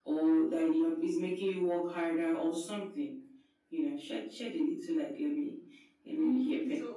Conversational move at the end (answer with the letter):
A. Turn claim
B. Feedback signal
A